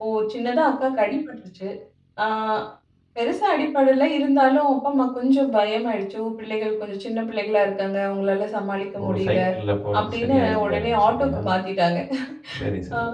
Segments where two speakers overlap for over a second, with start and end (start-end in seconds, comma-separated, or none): 10.0-11.4